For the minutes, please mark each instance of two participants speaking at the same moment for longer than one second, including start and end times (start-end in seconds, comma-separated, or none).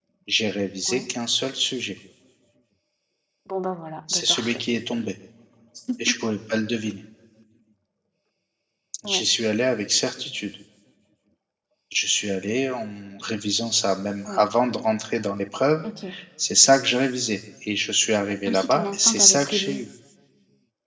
18.5-19.8